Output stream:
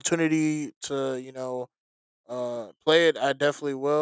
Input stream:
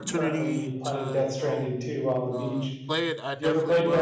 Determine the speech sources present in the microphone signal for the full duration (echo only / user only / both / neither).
both